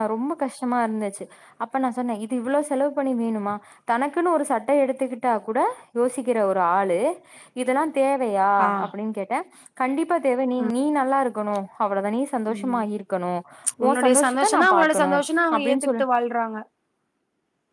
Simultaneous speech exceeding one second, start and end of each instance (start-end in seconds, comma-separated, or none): 13.8-15.1